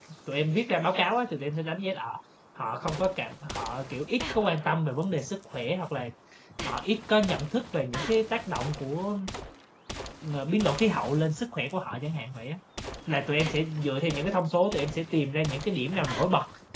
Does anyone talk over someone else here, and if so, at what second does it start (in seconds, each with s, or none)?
none